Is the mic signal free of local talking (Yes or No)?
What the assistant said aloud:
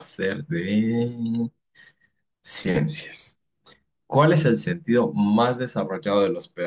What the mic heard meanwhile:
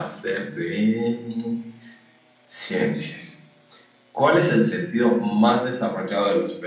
Yes